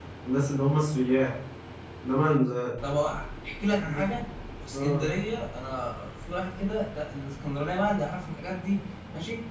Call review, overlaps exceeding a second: none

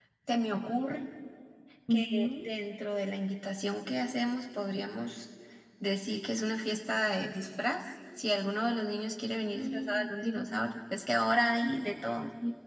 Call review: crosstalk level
present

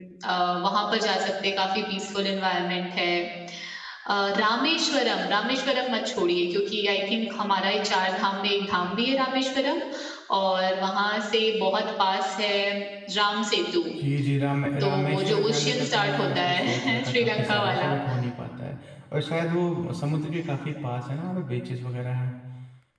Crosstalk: present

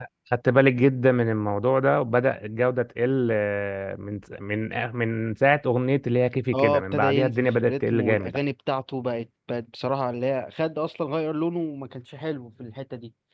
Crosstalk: present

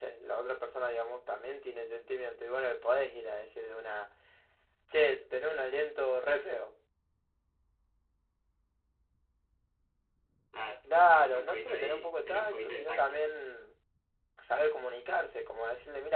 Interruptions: present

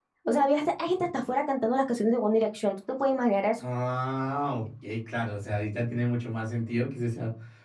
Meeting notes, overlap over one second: none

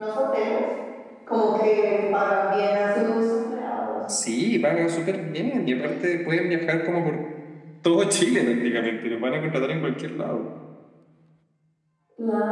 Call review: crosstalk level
none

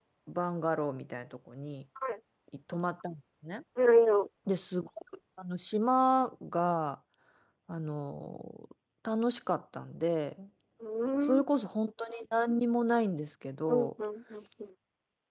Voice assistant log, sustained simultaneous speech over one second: none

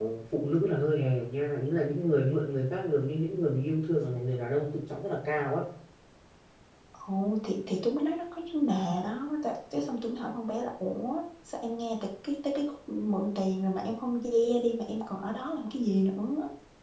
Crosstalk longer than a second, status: none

